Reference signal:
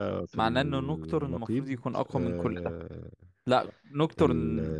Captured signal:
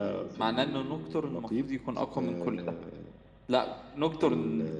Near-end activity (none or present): none